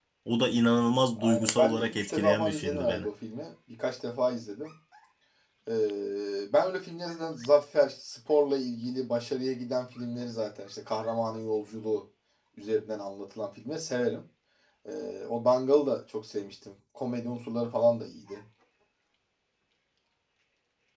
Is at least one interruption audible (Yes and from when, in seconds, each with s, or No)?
Yes, from 1.2 s